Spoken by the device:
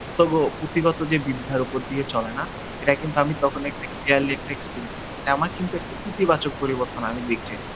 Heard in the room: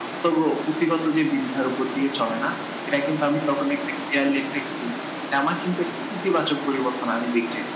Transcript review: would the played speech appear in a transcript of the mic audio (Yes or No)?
Yes